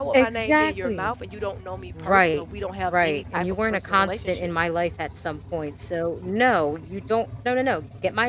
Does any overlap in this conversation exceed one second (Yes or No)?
Yes